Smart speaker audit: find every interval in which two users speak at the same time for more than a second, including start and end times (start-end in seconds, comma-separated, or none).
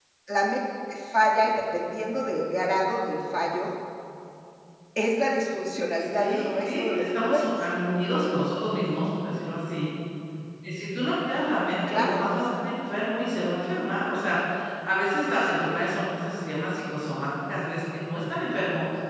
6.1-7.5